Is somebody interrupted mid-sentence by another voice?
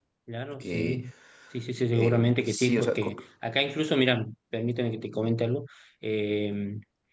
Yes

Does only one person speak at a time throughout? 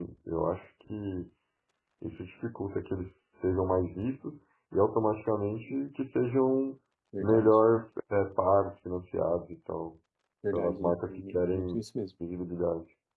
No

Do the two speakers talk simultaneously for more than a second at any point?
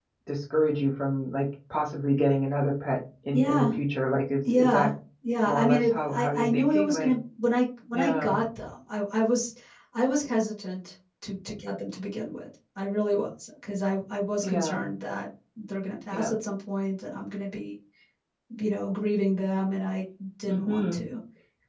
Yes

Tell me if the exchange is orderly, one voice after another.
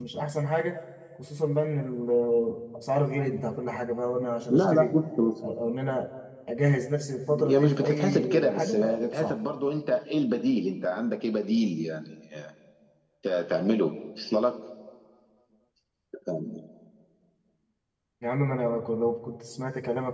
No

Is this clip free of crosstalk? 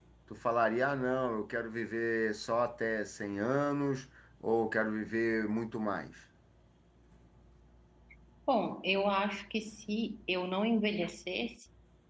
Yes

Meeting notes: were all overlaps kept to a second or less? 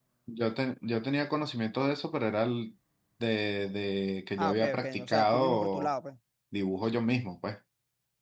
No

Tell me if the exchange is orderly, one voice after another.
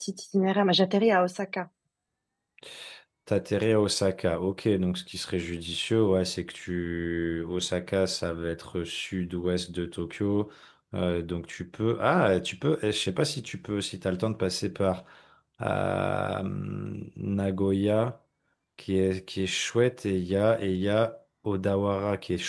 Yes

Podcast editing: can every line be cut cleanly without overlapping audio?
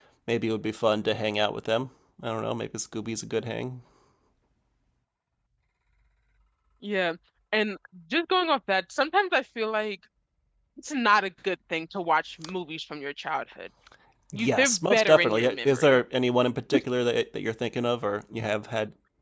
No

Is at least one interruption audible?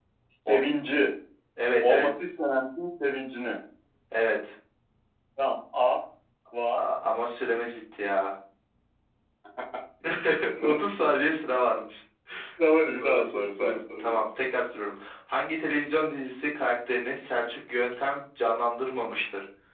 Yes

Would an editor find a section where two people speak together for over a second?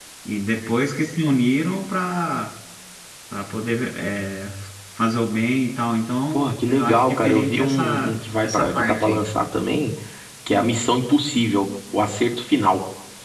Yes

